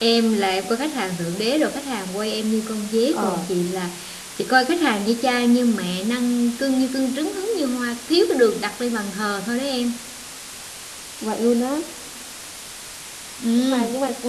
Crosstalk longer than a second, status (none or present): none